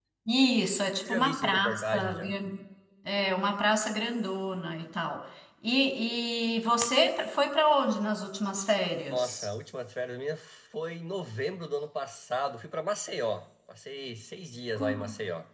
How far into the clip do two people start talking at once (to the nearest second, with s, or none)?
1 s